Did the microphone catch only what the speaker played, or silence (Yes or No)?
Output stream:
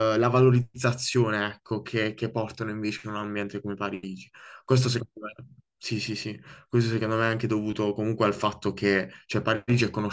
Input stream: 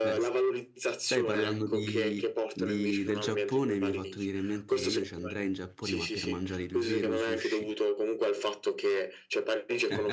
No